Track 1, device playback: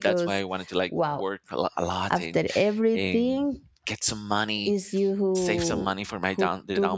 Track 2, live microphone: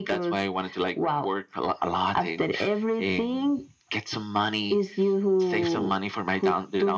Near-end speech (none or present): none